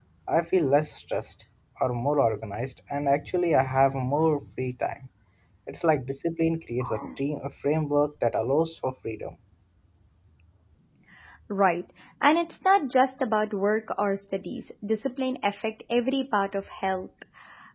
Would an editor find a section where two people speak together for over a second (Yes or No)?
No